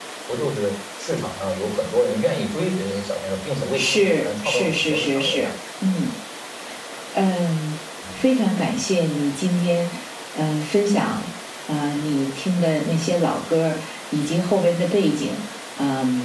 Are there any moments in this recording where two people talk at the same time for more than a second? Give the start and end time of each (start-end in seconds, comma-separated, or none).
3.8-5.5